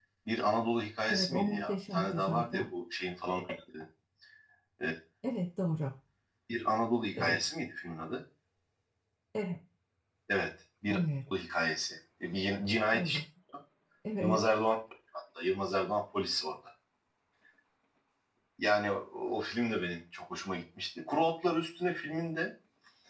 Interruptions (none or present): present